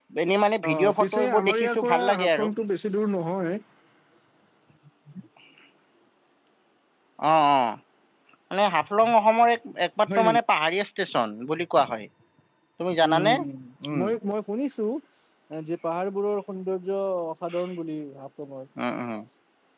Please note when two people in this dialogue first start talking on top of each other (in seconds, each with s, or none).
0.7 s